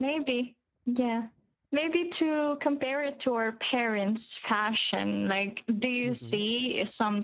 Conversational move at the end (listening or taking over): listening